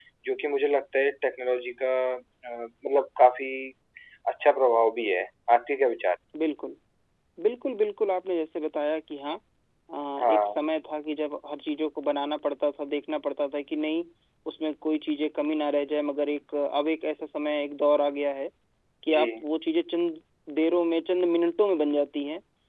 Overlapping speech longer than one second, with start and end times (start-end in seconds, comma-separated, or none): none